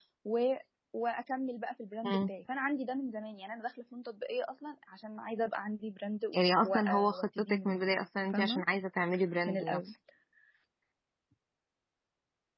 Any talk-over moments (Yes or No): Yes